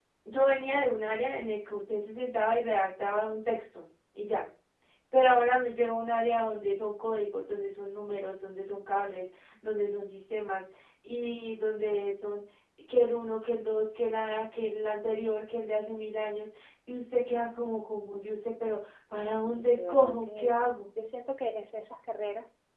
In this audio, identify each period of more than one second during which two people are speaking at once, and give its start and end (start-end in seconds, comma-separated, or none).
19.2-20.5